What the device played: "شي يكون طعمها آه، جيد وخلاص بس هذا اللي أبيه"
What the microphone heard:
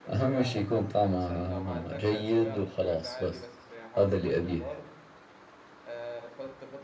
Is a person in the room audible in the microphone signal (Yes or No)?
Yes